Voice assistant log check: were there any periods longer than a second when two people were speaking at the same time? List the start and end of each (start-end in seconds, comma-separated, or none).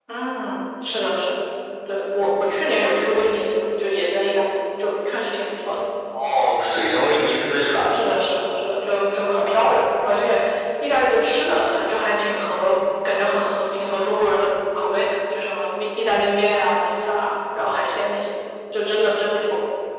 none